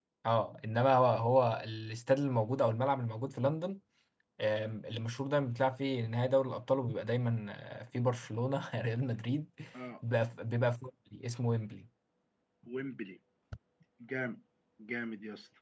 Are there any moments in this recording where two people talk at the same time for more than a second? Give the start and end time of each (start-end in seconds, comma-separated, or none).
none